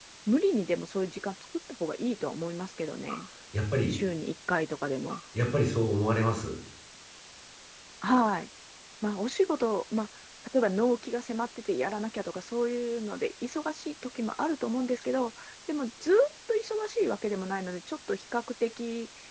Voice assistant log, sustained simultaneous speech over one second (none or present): none